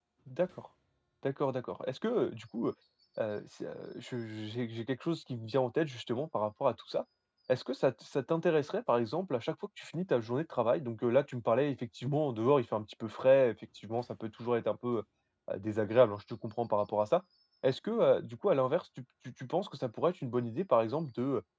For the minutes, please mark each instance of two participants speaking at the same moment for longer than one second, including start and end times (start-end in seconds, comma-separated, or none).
none